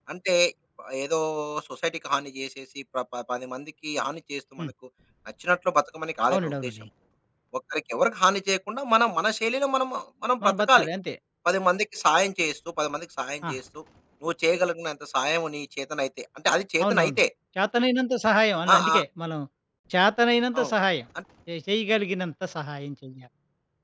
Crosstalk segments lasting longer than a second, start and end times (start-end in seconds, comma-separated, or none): none